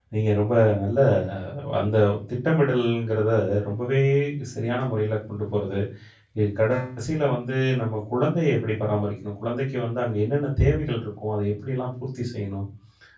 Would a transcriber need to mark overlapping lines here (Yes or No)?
No